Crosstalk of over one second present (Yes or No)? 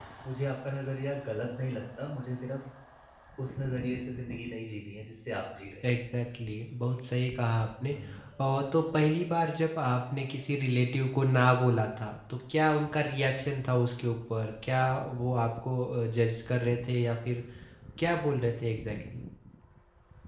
No